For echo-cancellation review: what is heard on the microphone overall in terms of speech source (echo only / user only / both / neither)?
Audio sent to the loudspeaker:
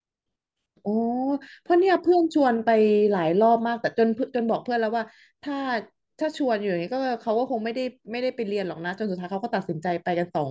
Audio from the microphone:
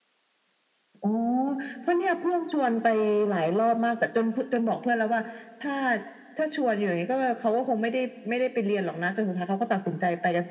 echo only